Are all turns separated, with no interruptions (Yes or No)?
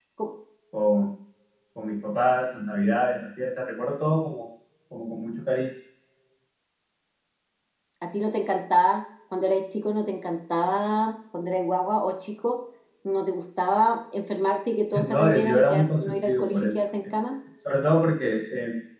No